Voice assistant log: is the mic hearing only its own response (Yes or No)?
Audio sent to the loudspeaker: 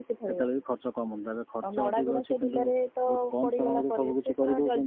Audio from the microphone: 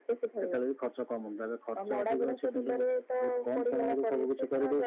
Yes